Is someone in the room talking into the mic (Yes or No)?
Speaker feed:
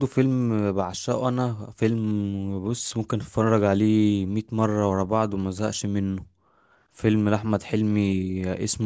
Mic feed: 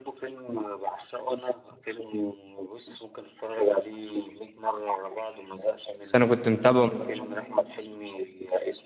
Yes